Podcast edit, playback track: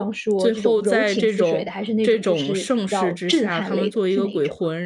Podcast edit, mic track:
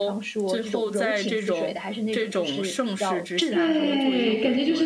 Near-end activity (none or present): present